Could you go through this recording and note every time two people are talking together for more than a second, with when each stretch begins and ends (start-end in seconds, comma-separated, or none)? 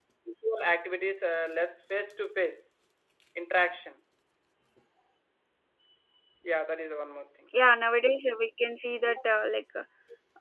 none